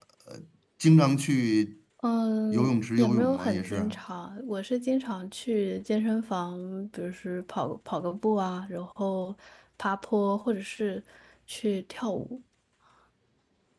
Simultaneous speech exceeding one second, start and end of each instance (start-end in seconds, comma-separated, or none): 2.5-4.0